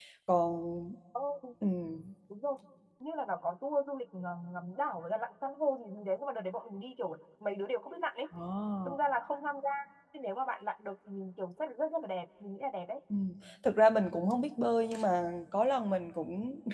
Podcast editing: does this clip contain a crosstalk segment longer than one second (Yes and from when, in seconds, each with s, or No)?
No